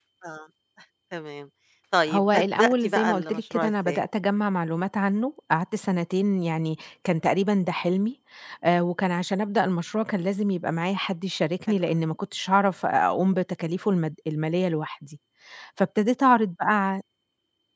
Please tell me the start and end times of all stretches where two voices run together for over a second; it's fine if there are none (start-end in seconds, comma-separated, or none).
2.1-4.0